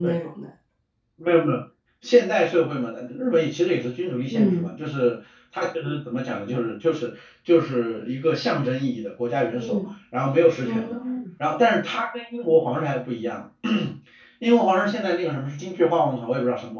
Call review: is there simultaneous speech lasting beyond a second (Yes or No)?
No